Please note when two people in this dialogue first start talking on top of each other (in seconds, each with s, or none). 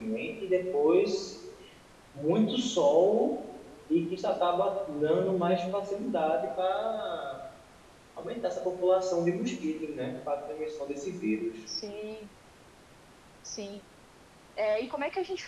none